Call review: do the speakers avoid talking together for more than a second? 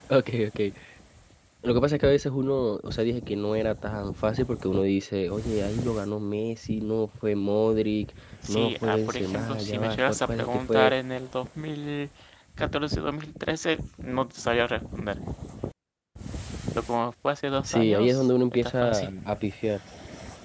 No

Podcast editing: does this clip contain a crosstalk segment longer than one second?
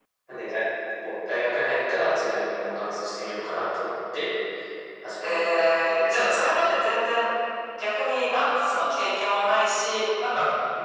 Yes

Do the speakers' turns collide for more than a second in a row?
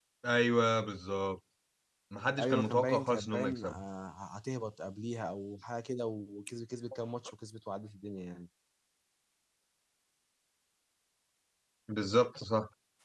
Yes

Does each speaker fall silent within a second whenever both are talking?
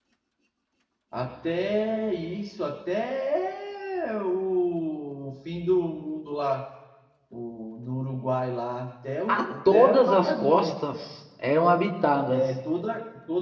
No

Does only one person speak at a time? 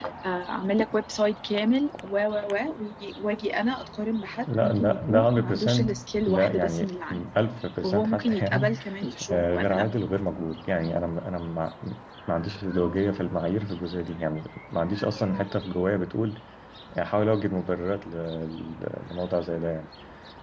No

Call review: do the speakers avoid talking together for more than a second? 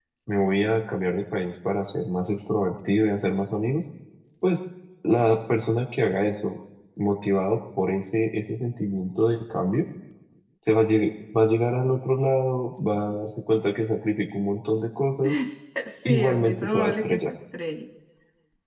No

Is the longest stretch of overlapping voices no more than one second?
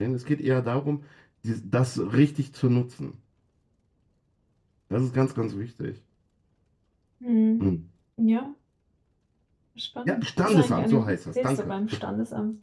No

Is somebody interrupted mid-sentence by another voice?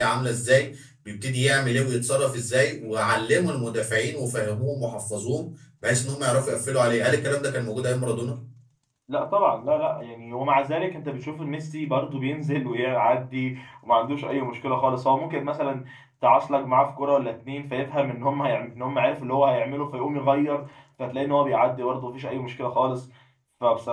No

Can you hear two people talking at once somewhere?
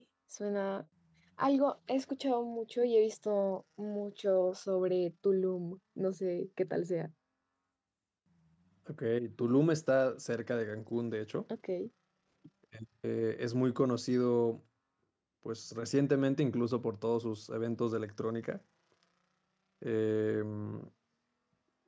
No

